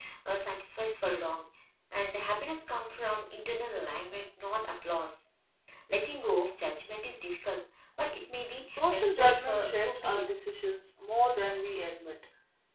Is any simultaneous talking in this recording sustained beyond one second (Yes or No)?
Yes